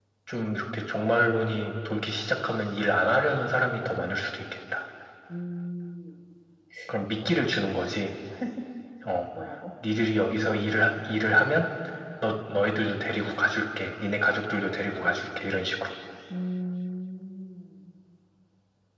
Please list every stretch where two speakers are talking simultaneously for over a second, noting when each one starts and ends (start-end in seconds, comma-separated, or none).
none